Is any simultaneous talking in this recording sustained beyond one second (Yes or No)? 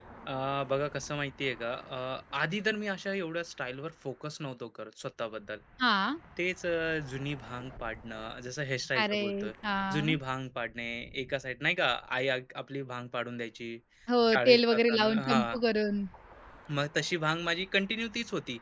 Yes